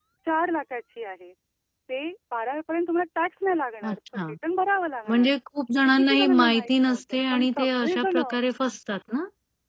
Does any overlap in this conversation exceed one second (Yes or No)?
Yes